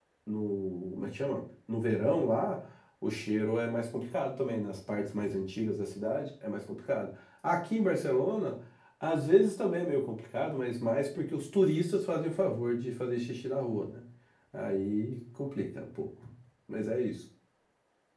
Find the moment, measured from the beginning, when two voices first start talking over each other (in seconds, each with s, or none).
none